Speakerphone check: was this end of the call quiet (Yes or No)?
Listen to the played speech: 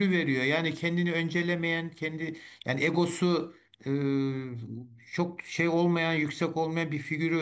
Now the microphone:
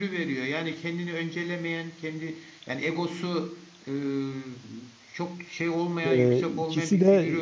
No